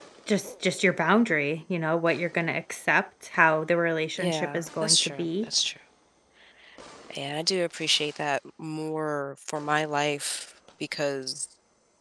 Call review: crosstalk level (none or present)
present